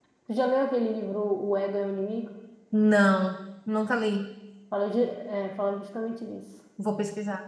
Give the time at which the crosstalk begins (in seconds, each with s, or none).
none